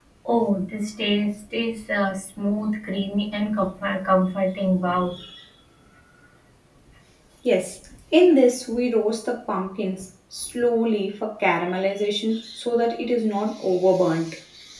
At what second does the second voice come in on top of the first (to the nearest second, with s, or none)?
none